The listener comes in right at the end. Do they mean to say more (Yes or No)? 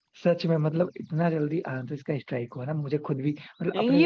Yes